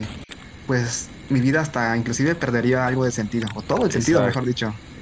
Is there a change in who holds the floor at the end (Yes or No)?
Yes